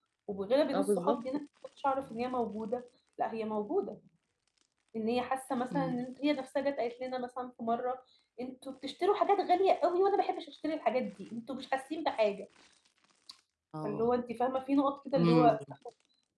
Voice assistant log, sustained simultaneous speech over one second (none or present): none